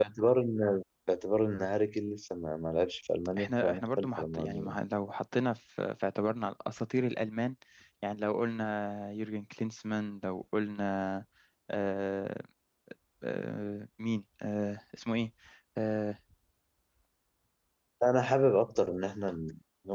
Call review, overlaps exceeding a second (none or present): present